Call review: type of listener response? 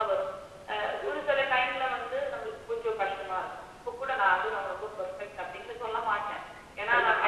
taking over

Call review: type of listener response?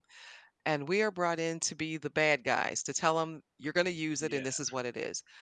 listening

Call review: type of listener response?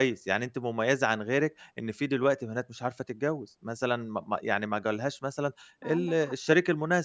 listening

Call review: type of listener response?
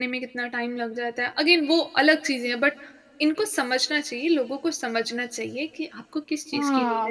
taking over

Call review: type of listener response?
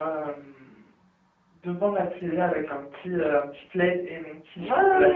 taking over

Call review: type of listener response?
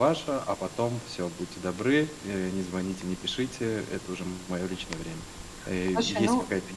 listening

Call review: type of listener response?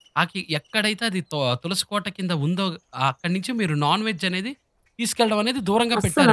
taking over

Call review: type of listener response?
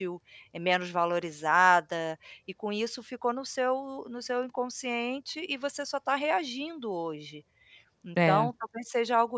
listening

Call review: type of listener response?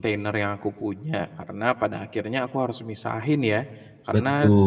listening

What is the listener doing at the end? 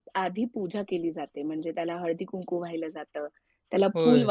listening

